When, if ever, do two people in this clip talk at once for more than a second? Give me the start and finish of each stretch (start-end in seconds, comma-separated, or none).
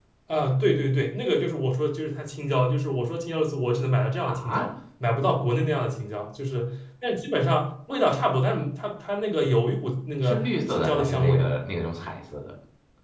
10.2-11.5